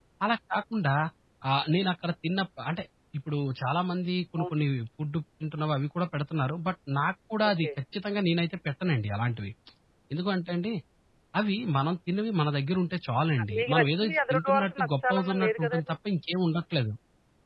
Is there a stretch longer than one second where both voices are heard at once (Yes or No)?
Yes